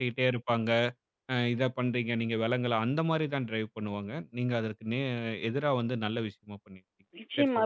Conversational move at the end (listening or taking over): taking over